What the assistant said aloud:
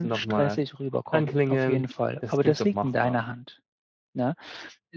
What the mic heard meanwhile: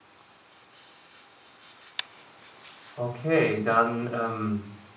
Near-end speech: present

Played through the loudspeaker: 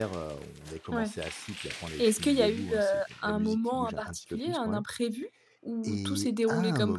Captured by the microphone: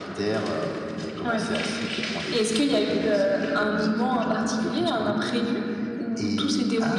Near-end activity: none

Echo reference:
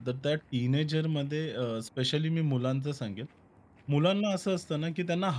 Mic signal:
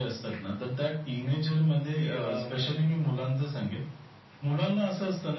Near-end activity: present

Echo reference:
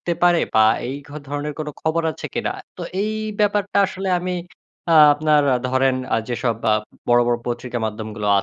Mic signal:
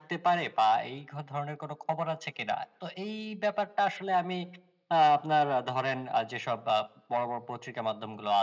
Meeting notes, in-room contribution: none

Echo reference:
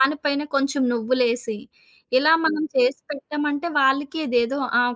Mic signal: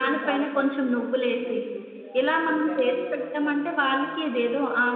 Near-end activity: present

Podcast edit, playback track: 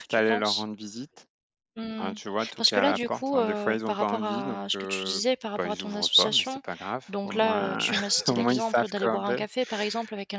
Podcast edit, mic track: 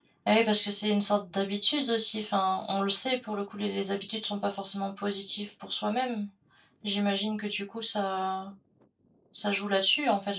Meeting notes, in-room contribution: present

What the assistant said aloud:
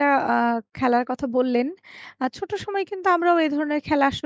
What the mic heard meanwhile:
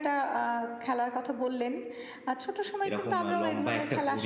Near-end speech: present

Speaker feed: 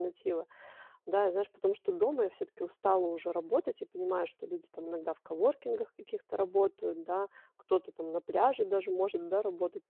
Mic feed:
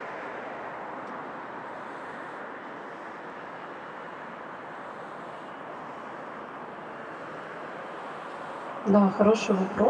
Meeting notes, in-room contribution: present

